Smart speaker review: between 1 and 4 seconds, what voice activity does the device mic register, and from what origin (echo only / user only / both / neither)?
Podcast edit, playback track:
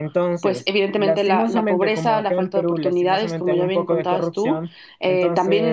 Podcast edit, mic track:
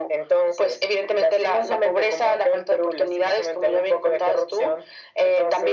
echo only